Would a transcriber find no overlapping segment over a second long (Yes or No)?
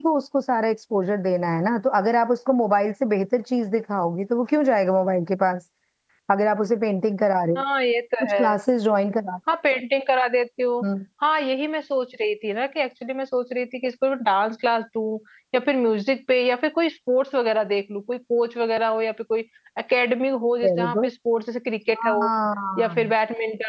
Yes